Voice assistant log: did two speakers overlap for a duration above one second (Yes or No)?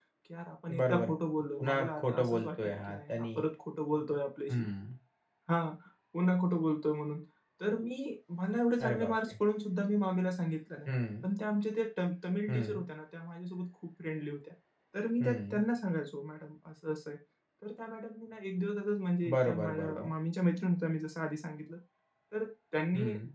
Yes